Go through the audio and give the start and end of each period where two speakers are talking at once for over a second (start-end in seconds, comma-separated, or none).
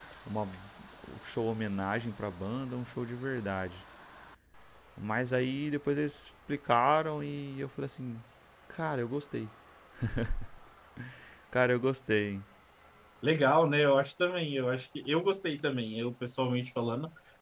none